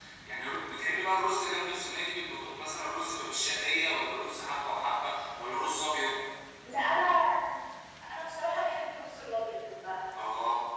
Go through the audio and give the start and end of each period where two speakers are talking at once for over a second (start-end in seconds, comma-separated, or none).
none